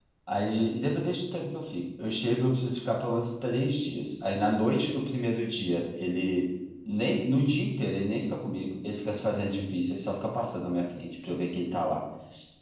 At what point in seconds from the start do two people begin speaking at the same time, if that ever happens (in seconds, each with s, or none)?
none